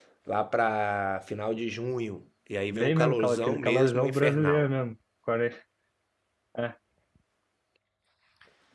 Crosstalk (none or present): present